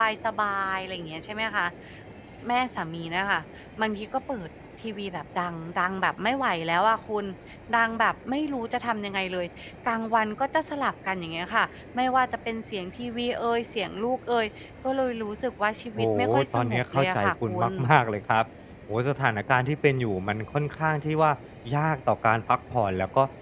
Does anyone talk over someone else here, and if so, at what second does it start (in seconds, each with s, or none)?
16.0 s